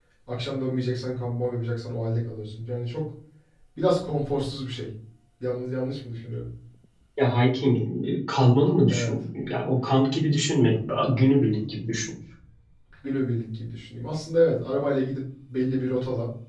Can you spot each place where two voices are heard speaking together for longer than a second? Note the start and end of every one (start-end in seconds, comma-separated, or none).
none